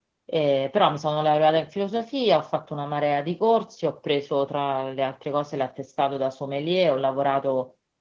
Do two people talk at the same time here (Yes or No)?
No